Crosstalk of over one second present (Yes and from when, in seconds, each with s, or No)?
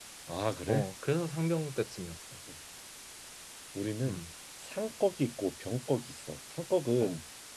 No